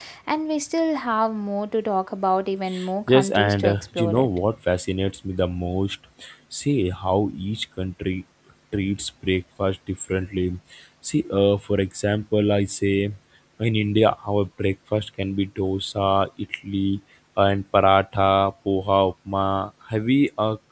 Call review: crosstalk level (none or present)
present